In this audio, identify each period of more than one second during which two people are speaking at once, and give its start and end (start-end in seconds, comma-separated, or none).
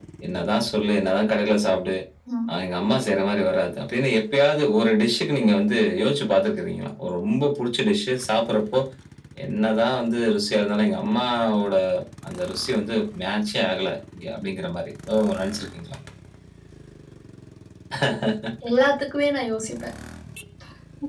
none